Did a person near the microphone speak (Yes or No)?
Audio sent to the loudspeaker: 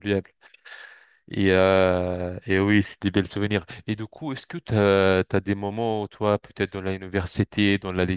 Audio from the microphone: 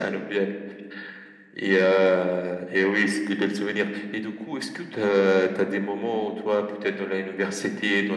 No